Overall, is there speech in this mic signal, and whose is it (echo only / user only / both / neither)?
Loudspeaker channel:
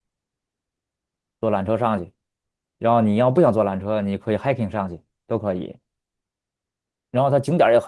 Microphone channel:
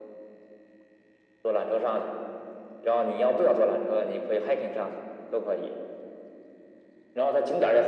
echo only